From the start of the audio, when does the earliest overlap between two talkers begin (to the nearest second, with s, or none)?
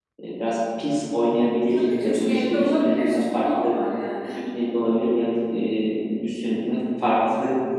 2 s